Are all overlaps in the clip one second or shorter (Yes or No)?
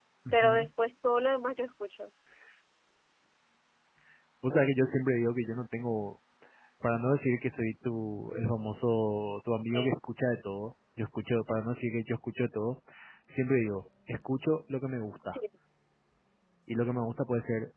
Yes